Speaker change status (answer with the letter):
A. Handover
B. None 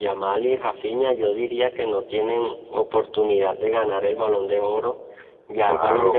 B